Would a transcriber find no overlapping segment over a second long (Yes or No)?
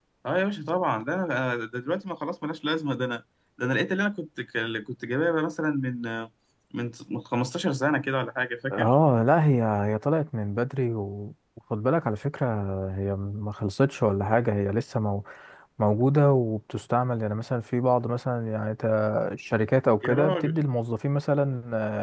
Yes